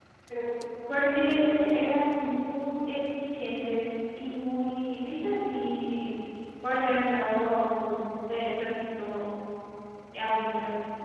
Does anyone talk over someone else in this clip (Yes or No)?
Yes